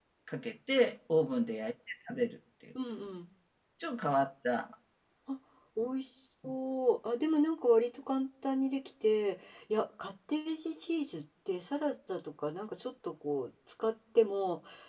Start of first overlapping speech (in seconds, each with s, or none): none